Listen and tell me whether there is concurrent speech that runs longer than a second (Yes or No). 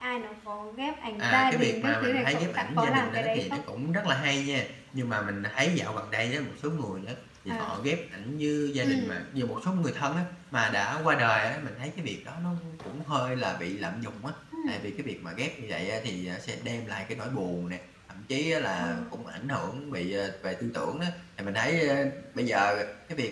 Yes